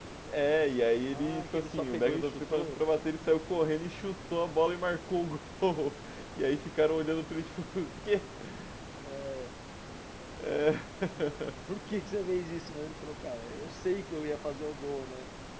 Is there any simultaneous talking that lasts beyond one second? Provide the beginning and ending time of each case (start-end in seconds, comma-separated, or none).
1.1-2.8